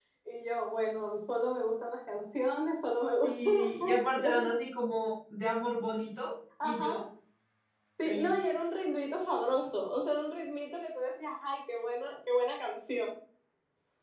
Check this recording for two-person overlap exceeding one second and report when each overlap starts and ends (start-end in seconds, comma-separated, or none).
3.2-4.5